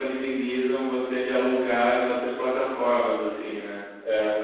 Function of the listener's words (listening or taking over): listening